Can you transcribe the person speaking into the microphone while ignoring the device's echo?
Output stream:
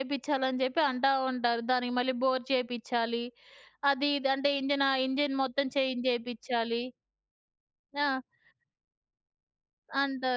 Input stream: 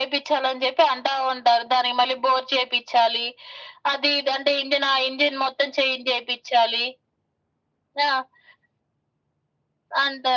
none

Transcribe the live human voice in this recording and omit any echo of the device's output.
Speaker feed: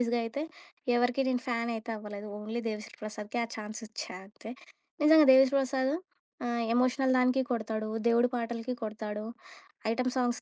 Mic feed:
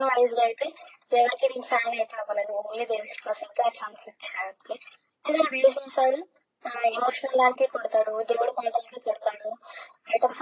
none

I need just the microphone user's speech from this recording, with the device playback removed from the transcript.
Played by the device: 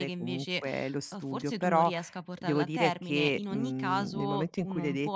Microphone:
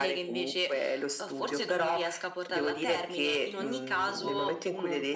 none

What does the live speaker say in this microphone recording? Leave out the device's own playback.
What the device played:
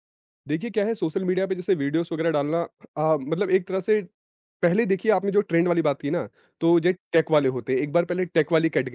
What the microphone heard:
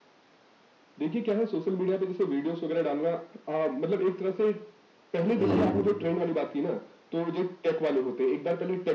हुँ, हुँ।

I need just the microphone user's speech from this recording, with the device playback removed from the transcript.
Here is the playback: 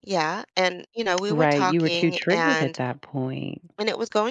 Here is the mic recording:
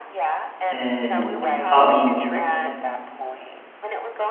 and, um

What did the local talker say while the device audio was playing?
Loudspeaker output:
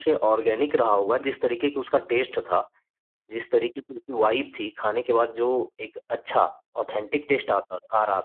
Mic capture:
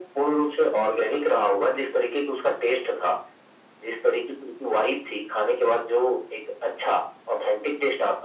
none

